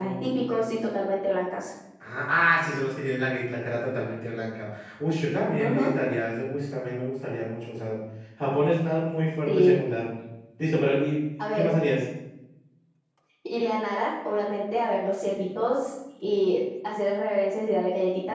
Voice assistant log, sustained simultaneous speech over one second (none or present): none